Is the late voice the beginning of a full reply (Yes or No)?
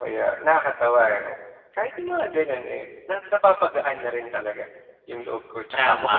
Yes